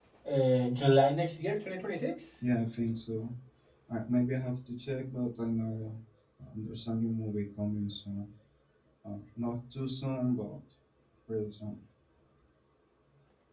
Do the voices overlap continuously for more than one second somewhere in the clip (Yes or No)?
No